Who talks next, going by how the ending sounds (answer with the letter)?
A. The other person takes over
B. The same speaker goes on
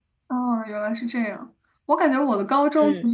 B